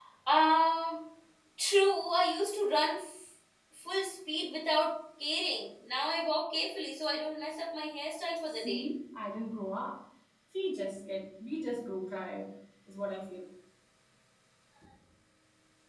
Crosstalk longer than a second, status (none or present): none